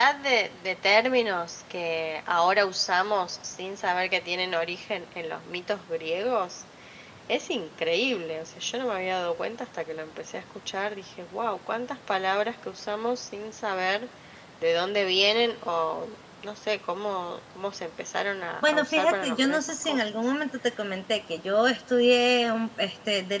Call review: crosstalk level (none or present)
present